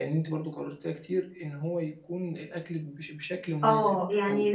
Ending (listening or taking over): taking over